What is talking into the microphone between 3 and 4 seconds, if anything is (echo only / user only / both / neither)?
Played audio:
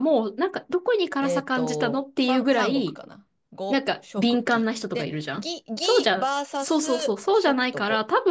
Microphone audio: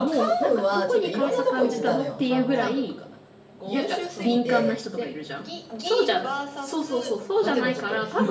both